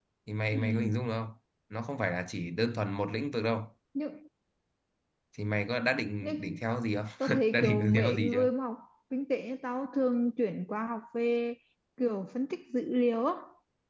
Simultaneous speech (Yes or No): Yes